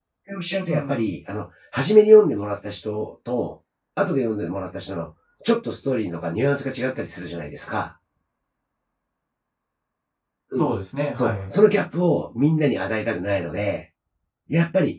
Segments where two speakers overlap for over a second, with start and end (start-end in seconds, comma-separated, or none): none